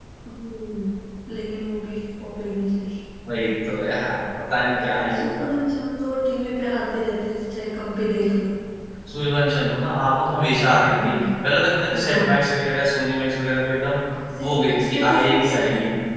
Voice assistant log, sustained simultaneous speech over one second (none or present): present